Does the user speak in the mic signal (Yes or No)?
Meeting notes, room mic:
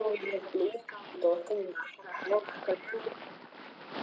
No